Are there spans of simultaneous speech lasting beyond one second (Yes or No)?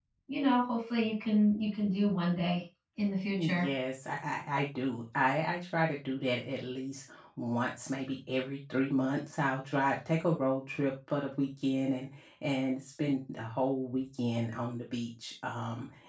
No